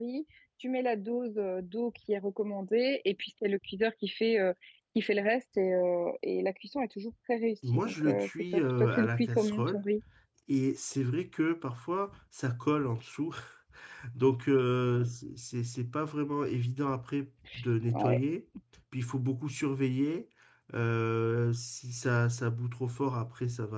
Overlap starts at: 7.7 s

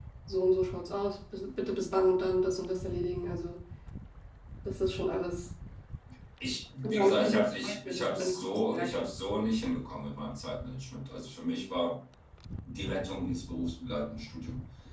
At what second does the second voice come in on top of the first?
6.8 s

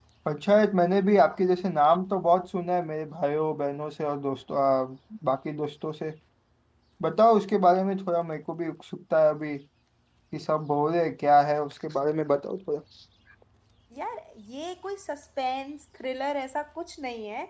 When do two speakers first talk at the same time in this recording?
none

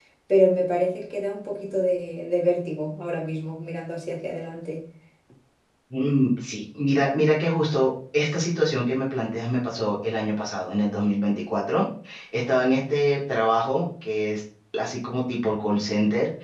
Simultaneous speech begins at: none

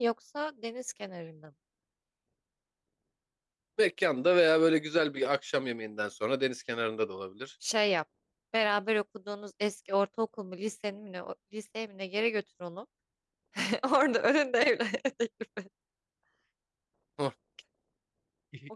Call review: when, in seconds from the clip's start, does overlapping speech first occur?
none

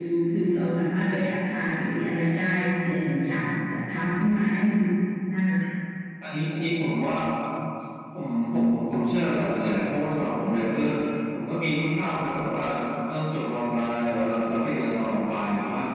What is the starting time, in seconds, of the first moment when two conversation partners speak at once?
none

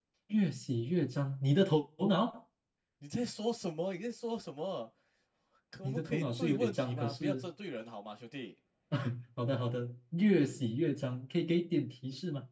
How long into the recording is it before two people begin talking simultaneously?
5.8 s

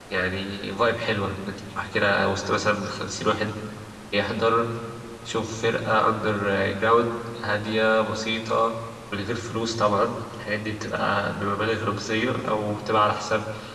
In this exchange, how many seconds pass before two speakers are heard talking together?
none

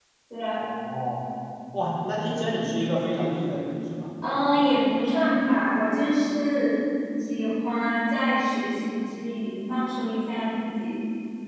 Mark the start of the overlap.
none

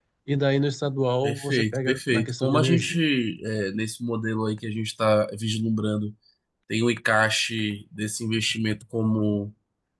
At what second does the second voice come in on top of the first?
1.2 s

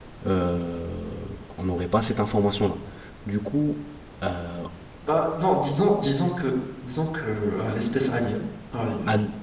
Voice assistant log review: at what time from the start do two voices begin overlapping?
none

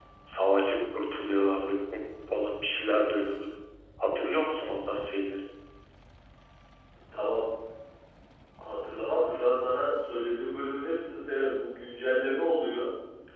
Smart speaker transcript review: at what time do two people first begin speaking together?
none

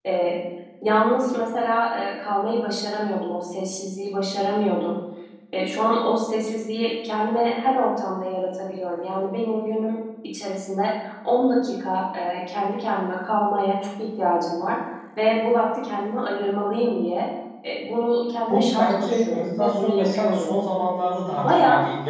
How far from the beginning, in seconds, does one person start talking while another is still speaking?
18.5 s

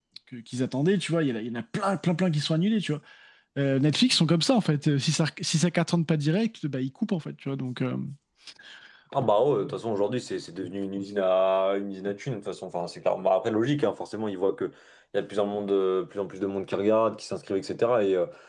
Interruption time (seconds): none

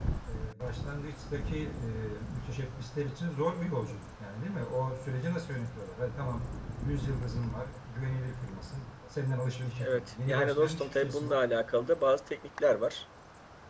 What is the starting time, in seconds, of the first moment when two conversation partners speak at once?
9.8 s

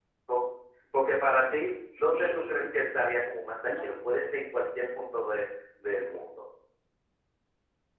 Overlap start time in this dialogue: 1.3 s

